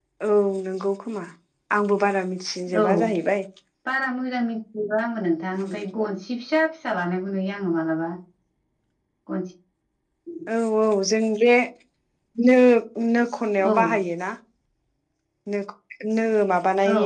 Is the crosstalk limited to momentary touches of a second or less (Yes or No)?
Yes